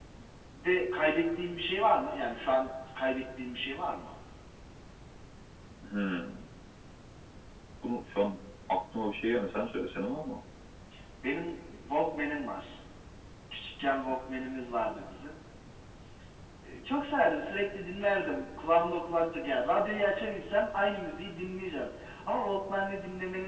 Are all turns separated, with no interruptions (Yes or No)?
Yes